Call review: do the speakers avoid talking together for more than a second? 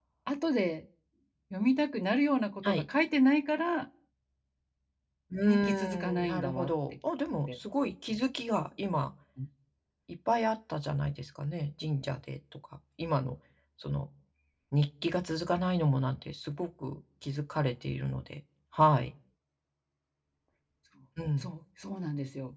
No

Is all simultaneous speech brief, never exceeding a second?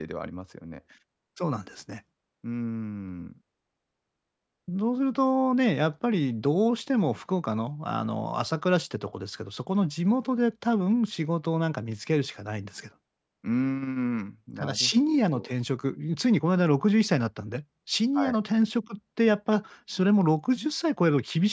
Yes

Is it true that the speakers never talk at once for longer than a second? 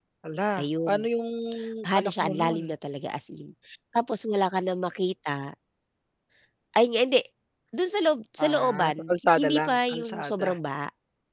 No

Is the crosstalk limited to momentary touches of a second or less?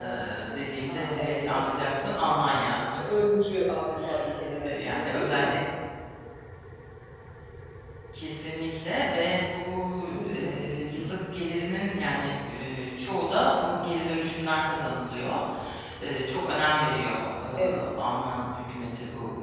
No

